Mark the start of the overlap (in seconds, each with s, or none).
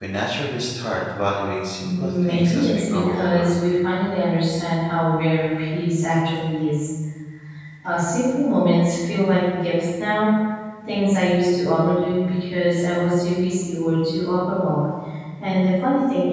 1.8 s